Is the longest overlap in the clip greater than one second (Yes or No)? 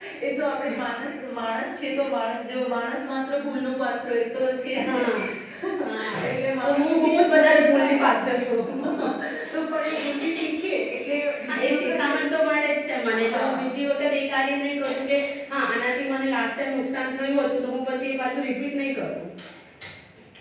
Yes